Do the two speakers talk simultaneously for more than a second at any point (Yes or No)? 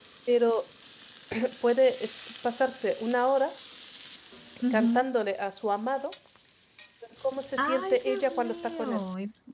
Yes